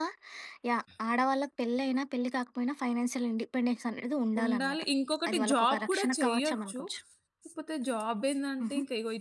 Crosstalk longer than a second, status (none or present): present